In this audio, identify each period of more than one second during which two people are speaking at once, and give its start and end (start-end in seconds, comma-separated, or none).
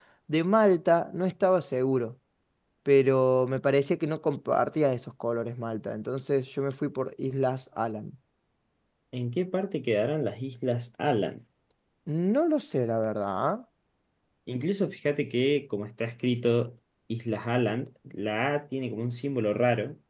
none